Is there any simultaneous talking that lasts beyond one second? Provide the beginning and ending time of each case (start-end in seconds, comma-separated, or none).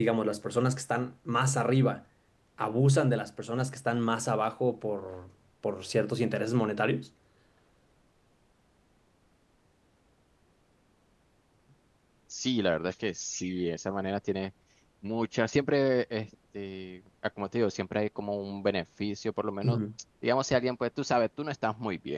none